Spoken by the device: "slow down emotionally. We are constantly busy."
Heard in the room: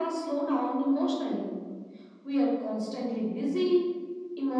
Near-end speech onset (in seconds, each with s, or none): none